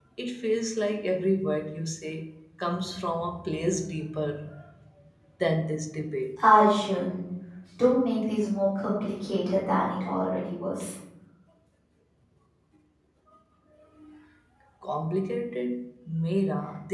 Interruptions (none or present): none